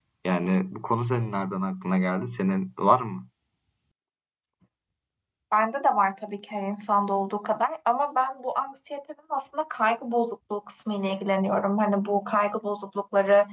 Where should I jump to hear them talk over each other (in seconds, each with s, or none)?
none